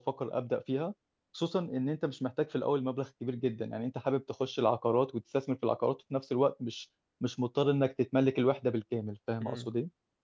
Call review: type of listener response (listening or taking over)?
taking over